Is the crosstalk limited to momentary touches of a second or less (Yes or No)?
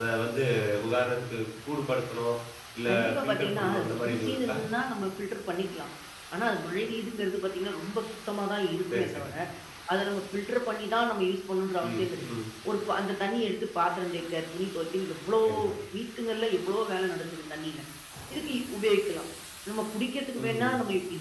No